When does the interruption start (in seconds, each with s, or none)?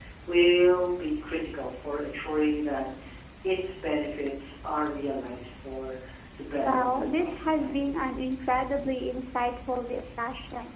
6.6 s